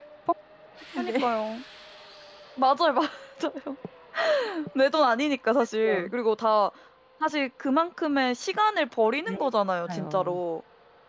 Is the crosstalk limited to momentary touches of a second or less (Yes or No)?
Yes